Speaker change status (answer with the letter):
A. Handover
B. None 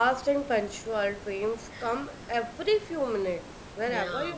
B